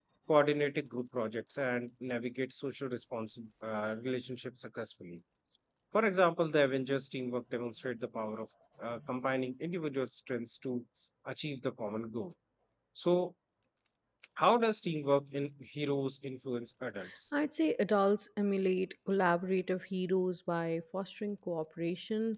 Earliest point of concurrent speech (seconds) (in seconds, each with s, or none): none